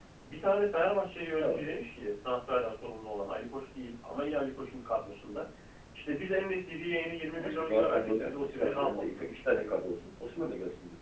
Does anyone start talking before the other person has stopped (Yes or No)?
Yes